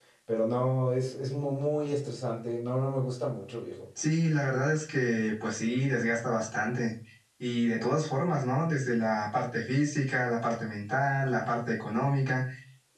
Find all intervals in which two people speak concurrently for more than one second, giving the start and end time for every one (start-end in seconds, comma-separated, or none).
none